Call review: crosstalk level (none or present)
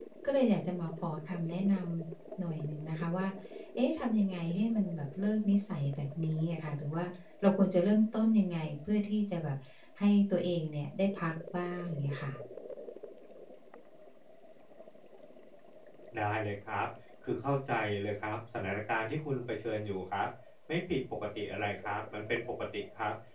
none